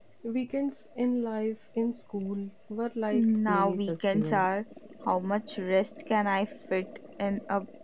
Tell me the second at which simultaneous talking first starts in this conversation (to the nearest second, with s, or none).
3 s